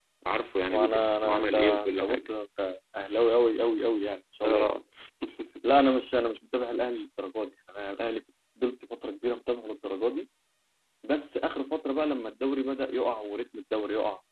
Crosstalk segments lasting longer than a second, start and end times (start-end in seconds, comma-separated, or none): 0.7-2.3